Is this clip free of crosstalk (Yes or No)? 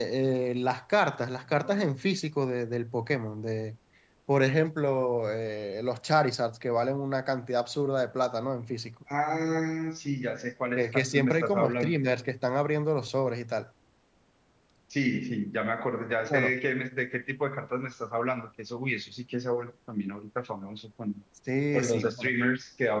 No